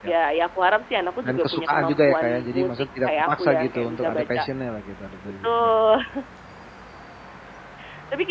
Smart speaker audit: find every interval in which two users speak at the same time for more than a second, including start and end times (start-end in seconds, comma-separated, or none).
1.2-4.4